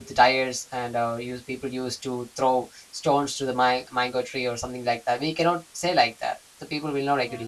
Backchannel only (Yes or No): Yes